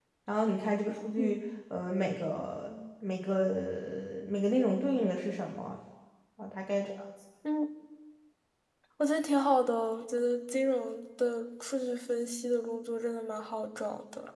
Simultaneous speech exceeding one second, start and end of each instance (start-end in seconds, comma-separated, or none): none